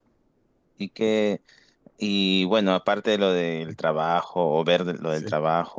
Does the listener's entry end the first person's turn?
No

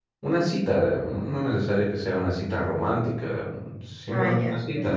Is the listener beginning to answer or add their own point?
Yes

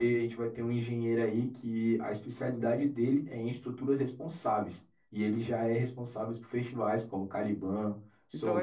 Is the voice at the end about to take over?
Yes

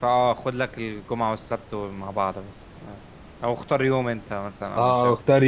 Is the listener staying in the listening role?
No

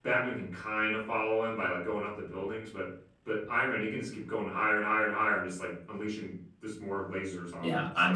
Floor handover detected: Yes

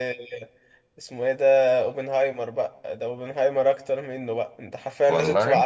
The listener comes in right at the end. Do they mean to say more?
No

